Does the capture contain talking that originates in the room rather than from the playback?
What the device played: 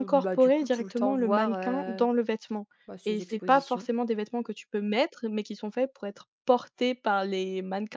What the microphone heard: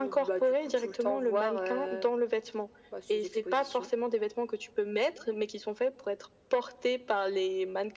No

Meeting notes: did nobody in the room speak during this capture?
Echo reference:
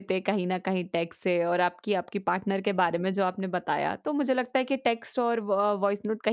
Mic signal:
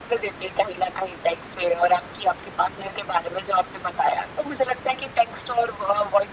Yes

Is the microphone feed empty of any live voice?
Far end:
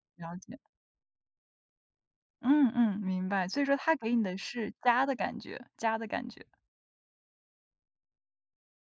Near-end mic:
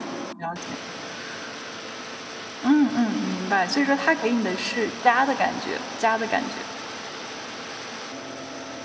Yes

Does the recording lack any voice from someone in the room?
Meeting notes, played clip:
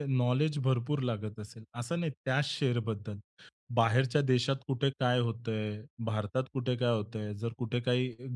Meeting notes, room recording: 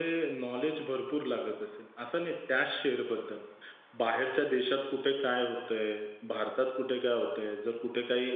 Yes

